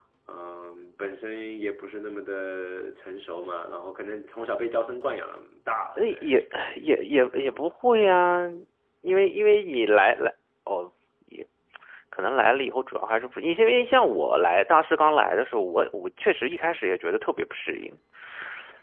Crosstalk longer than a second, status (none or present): none